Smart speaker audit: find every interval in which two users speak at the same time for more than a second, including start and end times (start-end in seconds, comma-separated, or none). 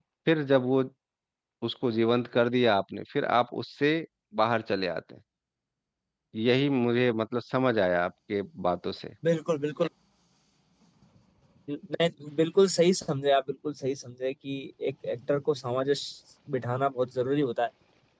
none